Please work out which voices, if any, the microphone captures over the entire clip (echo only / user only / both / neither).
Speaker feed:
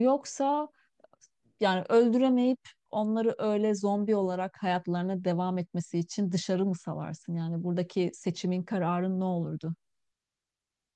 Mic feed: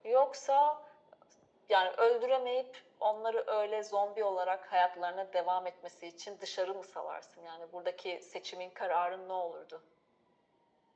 echo only